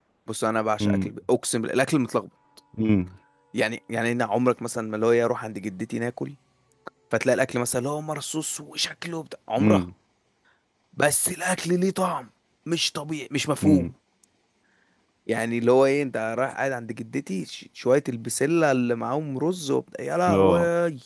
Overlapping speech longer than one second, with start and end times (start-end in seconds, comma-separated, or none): none